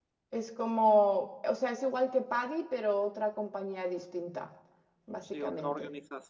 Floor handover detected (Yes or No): Yes